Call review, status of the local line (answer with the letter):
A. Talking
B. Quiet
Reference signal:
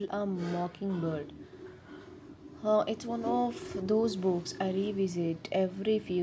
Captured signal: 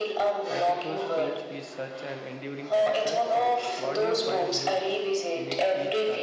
A